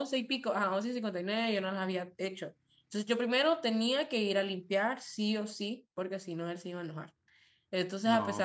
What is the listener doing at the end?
listening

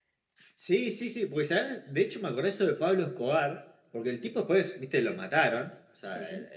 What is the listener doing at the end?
listening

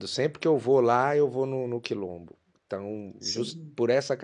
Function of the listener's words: listening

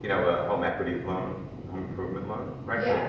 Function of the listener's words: listening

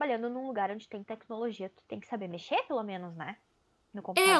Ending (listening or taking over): taking over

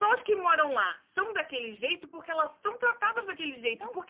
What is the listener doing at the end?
listening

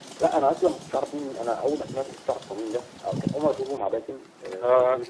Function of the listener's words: listening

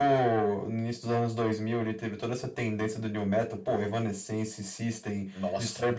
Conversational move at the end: listening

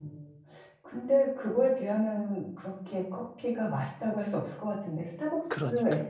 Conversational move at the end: listening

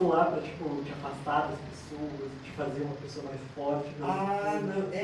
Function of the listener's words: taking over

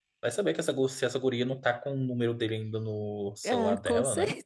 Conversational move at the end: taking over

